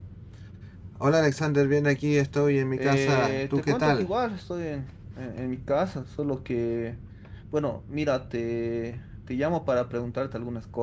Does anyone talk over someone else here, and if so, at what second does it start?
2.8 s

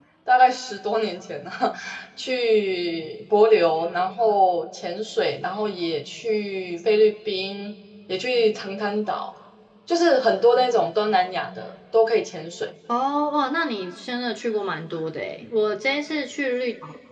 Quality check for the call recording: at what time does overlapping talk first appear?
none

